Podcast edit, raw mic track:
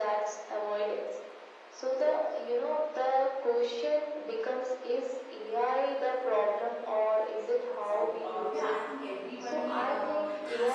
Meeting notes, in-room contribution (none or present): present